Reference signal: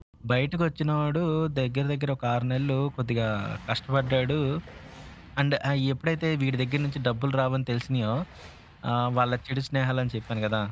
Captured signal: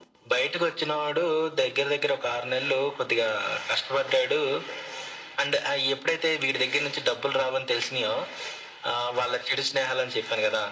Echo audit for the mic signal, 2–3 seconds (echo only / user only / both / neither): echo only